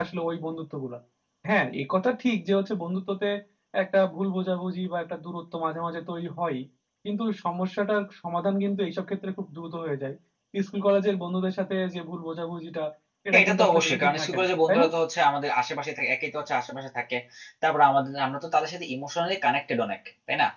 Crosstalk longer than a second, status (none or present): present